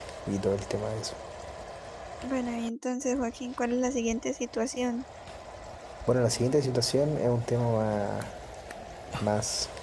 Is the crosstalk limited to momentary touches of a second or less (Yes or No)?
Yes